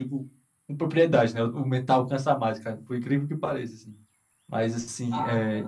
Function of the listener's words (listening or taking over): listening